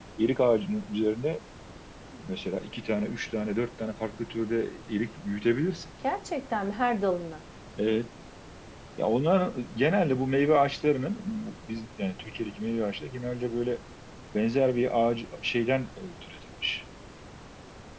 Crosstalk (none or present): none